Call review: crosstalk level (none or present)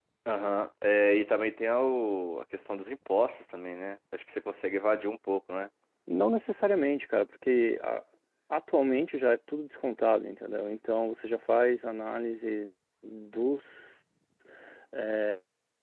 none